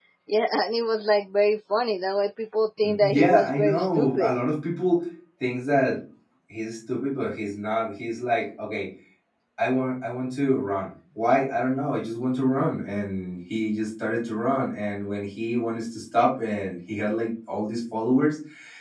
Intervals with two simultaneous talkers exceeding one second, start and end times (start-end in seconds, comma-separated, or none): 2.8-4.3